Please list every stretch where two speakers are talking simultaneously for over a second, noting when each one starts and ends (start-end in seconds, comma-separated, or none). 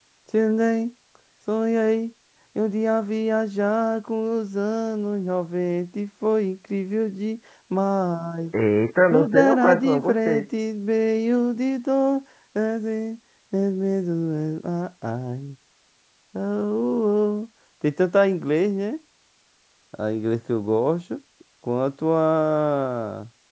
9.1-10.4